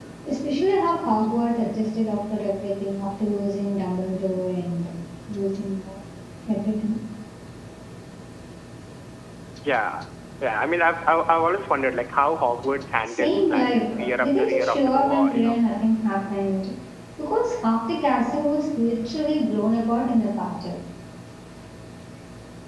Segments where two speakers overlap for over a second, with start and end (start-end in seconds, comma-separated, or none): 13.1-15.6